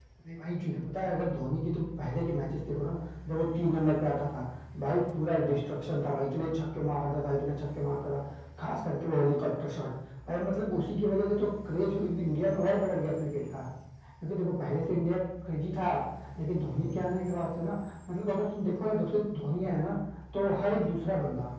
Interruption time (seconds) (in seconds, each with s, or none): none